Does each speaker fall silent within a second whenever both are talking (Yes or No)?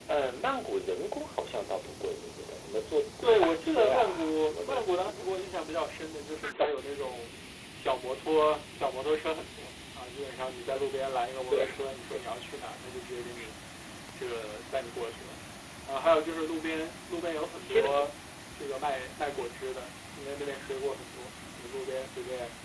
No